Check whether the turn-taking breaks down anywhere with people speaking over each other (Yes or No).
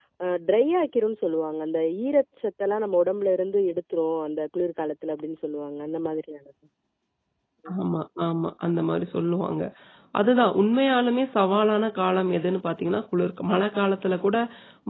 No